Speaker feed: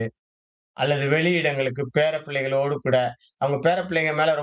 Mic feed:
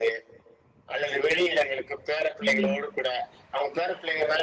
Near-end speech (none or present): present